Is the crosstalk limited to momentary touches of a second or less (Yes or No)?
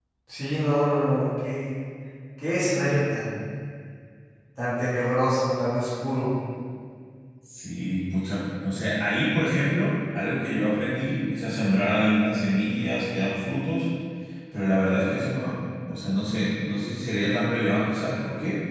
Yes